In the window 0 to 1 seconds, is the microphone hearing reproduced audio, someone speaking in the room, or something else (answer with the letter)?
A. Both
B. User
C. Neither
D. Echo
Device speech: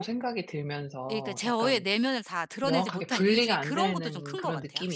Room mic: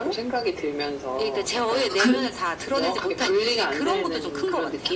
D